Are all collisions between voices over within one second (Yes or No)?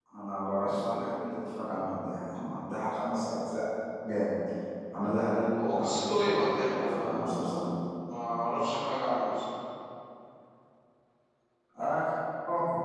No